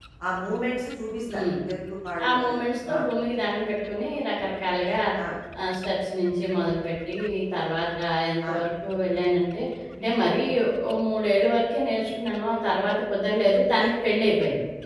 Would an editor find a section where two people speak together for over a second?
No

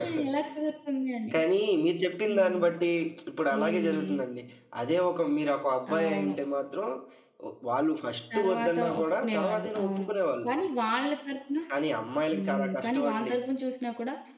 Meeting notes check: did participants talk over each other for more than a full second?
Yes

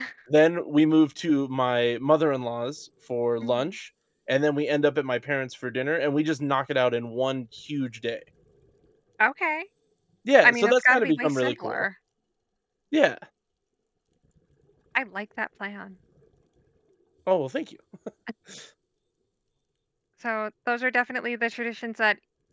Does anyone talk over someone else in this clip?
Yes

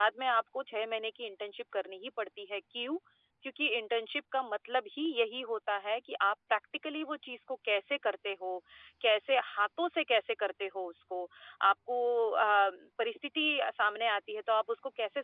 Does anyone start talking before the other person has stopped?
No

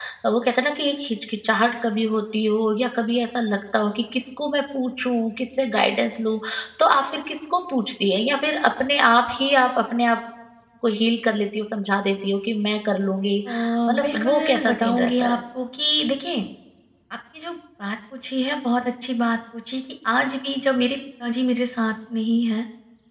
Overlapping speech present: Yes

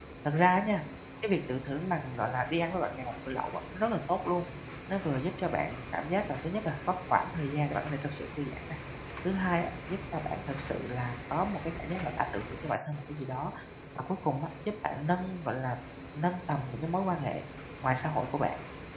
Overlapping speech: No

